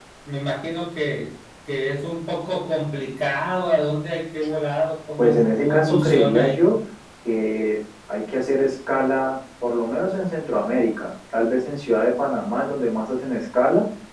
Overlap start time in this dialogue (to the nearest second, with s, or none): 5 s